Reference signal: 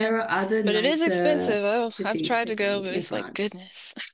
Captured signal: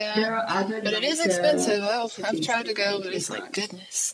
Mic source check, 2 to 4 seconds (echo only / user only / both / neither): echo only